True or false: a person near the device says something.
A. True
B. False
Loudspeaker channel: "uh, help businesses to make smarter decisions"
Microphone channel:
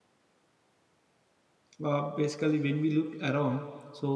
A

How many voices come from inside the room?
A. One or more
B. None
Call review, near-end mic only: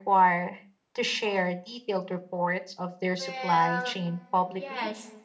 A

